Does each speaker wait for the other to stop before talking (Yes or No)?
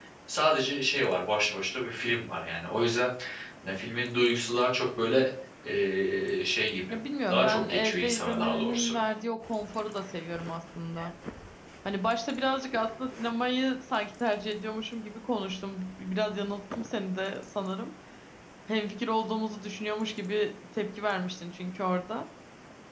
No